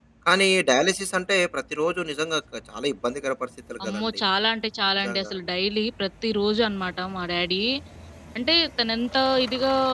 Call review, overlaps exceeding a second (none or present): none